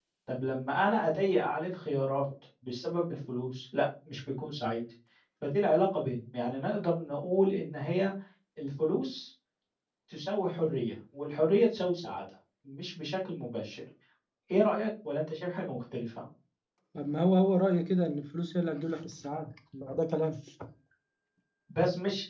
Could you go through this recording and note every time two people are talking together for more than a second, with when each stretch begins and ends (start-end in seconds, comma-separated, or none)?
none